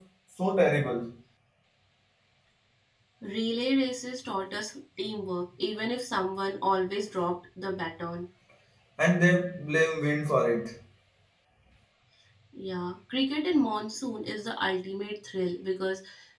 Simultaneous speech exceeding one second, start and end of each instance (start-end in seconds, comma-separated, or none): none